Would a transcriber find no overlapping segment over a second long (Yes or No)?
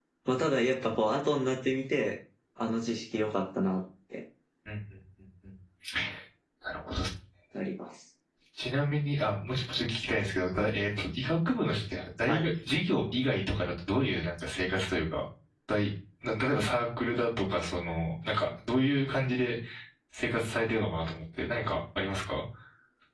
Yes